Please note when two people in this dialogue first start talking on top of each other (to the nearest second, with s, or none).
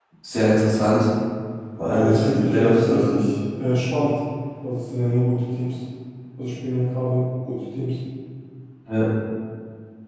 2 s